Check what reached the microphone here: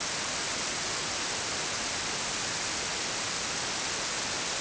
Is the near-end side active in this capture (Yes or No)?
No